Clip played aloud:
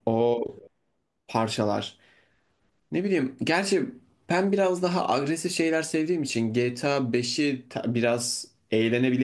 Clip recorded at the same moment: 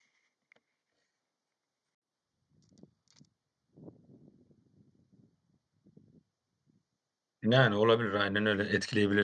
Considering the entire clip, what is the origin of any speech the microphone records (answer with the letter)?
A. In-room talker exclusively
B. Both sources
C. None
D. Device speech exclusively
A